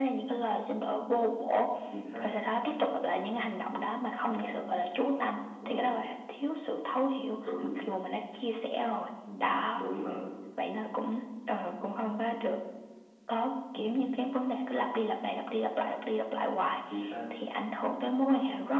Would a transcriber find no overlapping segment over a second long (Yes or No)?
Yes